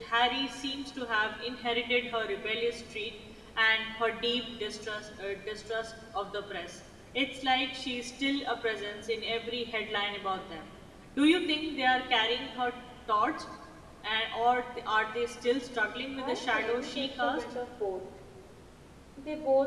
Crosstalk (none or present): present